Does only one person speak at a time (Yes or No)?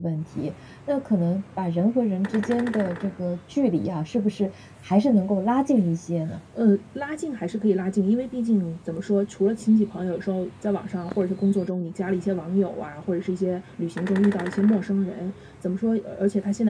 Yes